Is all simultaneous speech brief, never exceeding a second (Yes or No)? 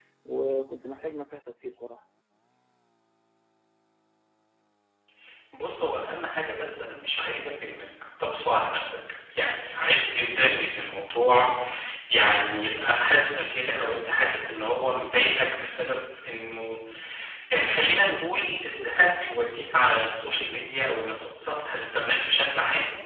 Yes